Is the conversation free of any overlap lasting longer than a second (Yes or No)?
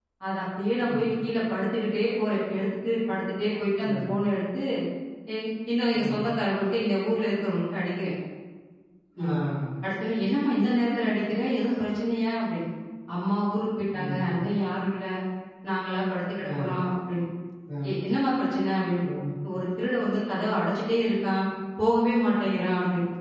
Yes